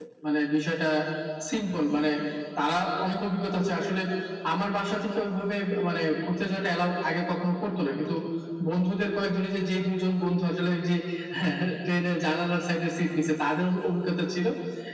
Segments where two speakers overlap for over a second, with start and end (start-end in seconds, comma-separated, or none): none